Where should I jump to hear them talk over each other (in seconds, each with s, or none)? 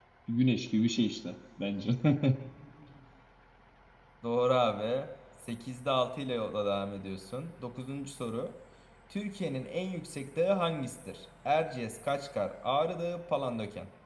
none